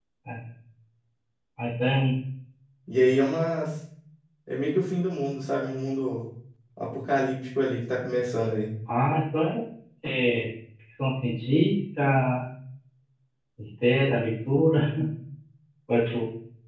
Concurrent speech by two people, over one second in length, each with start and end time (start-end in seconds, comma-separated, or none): none